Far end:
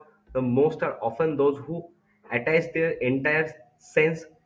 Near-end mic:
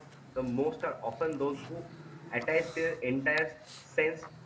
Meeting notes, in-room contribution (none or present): none